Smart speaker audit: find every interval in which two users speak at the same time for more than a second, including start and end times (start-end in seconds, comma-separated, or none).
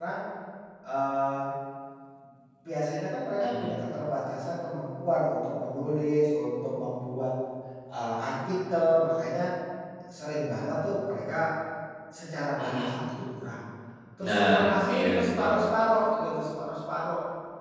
14.2-15.5